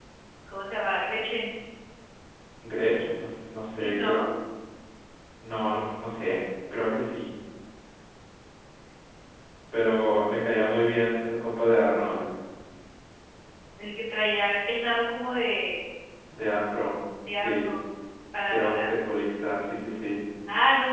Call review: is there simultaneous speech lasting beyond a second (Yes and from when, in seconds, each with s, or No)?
No